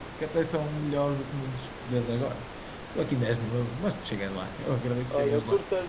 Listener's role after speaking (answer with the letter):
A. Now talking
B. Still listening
A